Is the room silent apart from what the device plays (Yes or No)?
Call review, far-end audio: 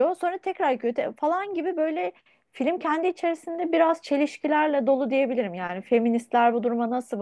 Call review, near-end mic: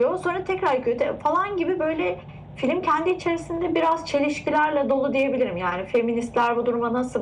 Yes